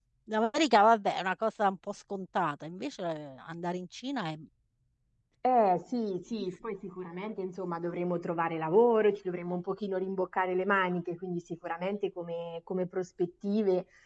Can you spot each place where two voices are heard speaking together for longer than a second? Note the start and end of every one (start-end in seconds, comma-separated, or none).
none